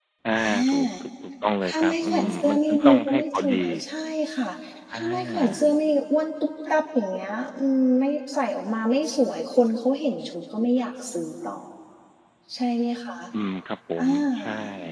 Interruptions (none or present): present